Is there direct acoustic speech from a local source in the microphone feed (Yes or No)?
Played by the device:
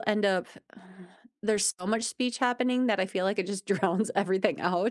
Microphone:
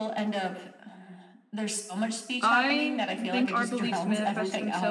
Yes